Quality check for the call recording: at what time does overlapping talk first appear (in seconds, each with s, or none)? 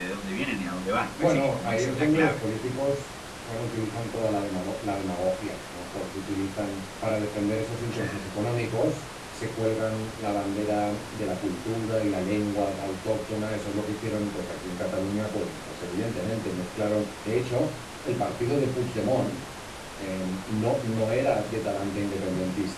1.2 s